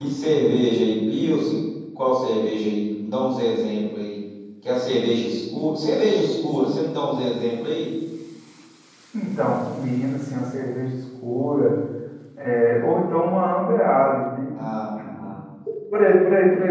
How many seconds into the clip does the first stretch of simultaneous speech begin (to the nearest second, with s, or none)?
none